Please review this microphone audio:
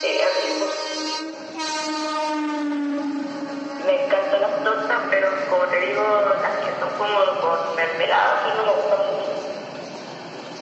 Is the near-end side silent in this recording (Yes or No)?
Yes